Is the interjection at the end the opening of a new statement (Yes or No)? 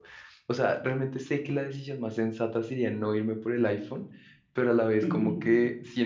No